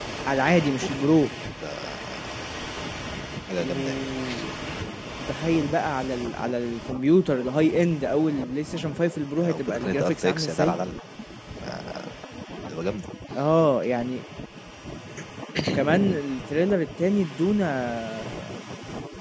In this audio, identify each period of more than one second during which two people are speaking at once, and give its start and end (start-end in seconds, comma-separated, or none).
9.4-10.8